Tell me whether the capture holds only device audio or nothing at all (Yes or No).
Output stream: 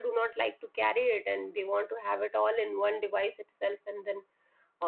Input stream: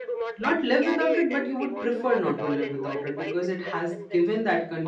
No